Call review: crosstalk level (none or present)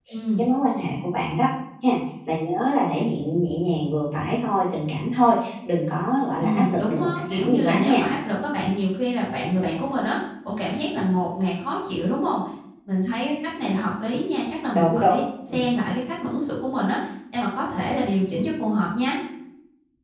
present